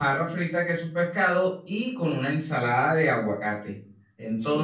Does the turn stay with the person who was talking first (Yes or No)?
Yes